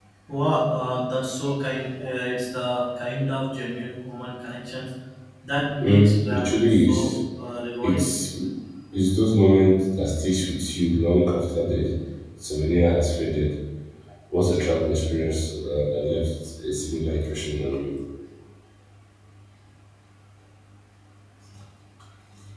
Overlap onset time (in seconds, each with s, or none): 5.8 s